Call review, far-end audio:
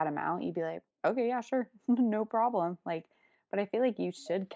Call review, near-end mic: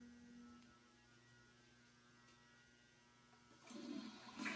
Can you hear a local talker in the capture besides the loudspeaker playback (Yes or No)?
No